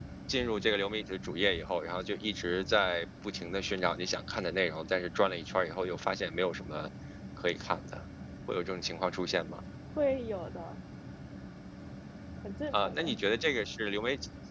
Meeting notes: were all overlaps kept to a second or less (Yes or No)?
Yes